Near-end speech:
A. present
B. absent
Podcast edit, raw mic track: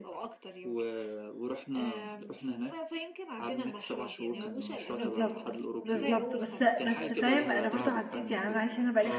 A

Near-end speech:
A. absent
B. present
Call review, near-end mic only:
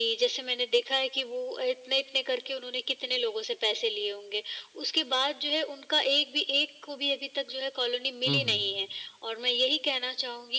B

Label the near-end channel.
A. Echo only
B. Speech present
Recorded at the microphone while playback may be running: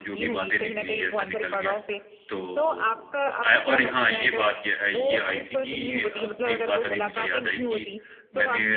B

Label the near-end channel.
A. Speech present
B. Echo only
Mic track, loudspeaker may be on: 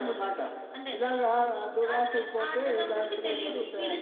B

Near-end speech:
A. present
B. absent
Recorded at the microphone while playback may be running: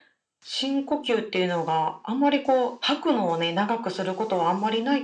B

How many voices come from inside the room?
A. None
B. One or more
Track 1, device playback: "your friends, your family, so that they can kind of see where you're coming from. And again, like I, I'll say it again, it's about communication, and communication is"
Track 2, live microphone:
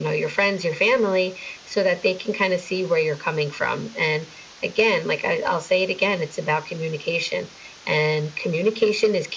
A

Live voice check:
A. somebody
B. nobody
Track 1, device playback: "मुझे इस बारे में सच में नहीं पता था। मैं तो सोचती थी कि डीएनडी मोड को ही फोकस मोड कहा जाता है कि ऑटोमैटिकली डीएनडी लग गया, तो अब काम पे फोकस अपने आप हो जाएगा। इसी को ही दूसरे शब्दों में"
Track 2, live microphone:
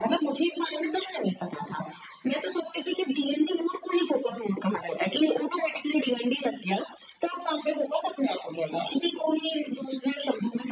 B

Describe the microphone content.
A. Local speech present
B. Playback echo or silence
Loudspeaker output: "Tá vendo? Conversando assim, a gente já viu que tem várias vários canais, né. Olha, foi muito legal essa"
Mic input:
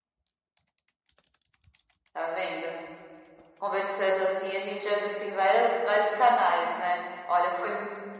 B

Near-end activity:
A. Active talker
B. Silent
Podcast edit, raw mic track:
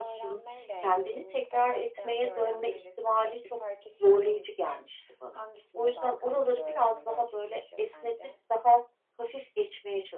A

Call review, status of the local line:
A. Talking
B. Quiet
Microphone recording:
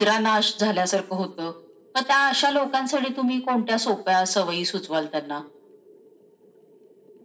B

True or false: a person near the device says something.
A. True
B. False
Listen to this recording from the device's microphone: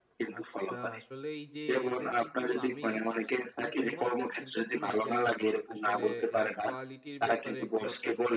A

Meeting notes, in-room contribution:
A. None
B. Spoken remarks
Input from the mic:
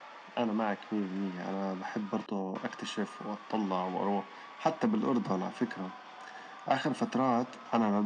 A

